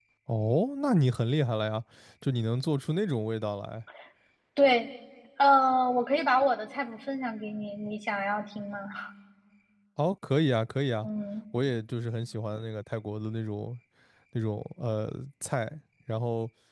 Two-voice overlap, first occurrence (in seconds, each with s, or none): none